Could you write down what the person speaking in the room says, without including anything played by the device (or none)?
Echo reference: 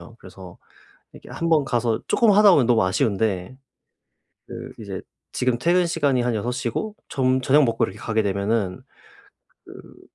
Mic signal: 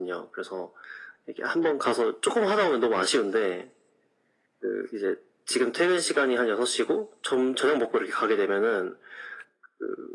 none